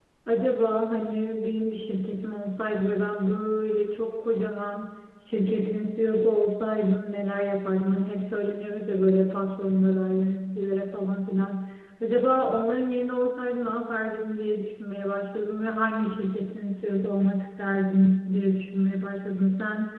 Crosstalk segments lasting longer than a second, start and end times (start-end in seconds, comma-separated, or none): none